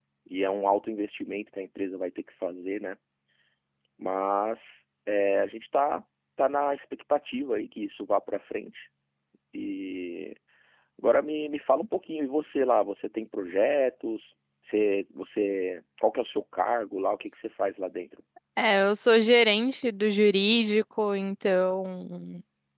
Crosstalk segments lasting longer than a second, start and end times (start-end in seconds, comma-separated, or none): none